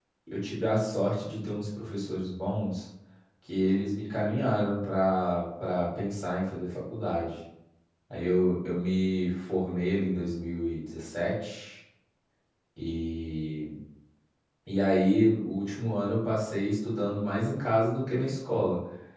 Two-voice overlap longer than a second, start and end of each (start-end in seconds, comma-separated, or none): none